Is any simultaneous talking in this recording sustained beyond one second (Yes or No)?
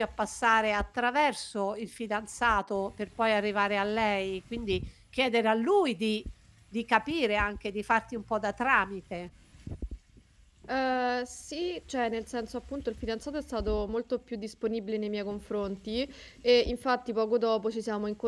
No